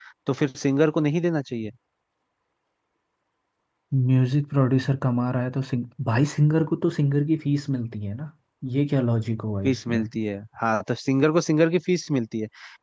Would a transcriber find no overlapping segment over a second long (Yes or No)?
Yes